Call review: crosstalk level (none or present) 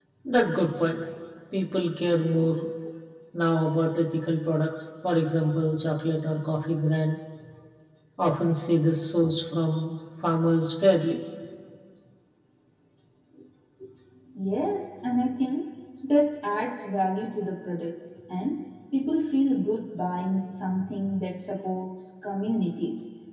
none